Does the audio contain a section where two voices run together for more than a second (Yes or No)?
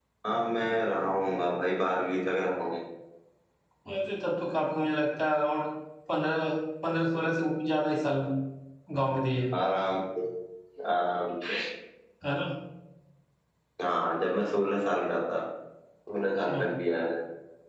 No